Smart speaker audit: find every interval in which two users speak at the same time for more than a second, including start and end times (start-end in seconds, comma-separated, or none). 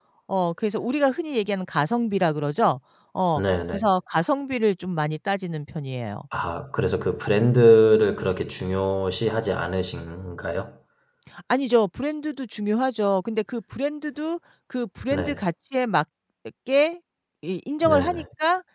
none